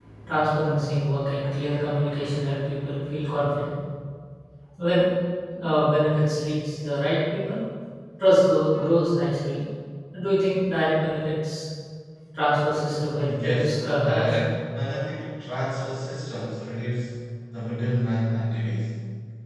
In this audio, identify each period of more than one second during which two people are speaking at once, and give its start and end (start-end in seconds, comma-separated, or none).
13.2-14.4